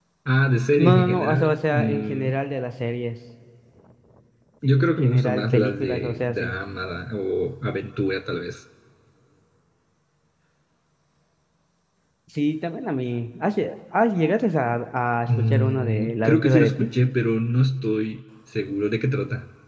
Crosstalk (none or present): present